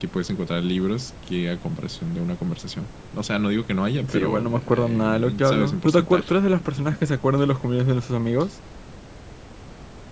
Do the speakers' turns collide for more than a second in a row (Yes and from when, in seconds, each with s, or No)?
Yes, from 4.0 s